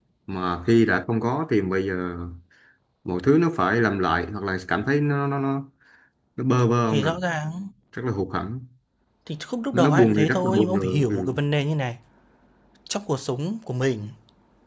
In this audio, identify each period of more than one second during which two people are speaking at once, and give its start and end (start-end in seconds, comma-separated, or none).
9.7-11.3